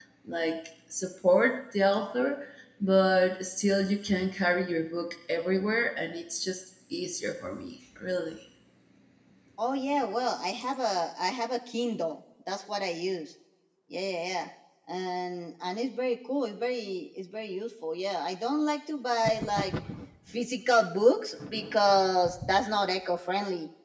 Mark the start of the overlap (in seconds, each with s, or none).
none